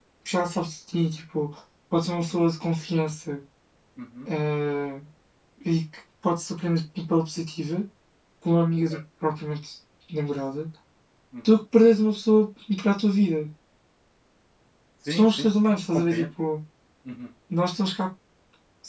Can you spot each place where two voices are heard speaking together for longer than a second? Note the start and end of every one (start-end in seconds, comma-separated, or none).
15.1-16.3